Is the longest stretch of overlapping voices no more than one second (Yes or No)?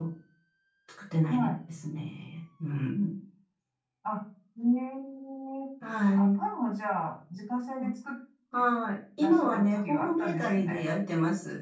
No